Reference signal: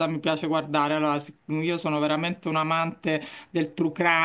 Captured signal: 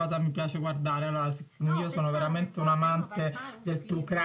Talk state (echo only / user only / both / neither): both